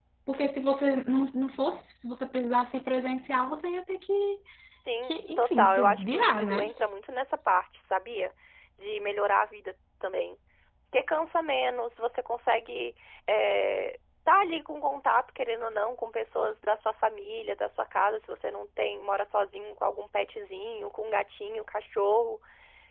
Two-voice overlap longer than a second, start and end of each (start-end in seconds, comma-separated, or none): 5.0-6.7